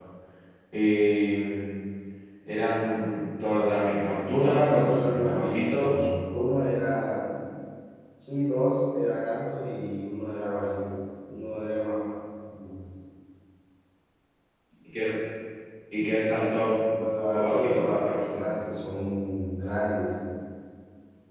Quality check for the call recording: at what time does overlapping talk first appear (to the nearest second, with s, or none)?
4 s